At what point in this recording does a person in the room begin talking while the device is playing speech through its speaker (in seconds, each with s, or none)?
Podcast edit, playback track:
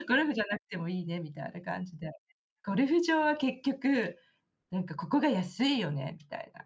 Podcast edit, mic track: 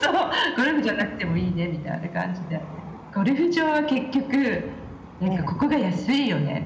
5.2 s